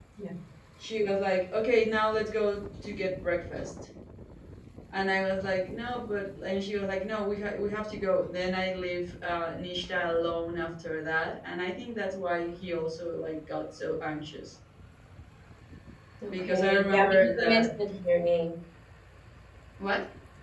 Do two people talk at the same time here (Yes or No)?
Yes